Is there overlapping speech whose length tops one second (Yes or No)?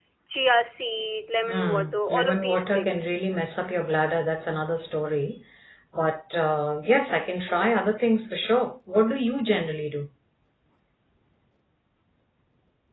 Yes